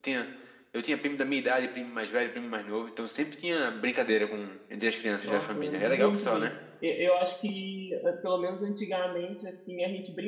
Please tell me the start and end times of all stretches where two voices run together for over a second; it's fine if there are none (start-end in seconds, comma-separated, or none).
5.2-6.5